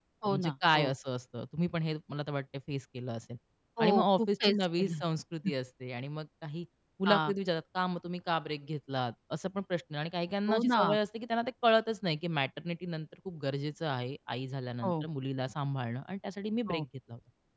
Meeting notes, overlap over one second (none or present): present